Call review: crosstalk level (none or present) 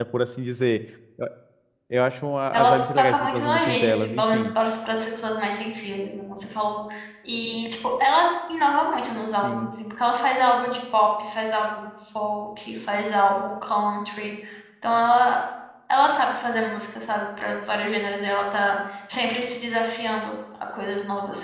present